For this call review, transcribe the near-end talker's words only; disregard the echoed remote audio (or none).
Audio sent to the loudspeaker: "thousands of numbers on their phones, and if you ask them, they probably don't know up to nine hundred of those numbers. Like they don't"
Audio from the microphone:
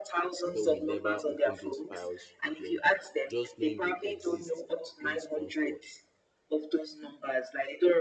when we never open those files again just knowing they exist brings comfort